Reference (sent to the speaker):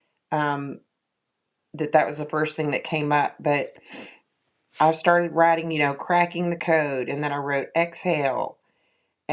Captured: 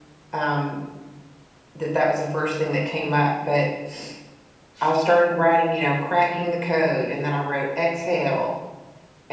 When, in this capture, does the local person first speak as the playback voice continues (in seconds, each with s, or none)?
none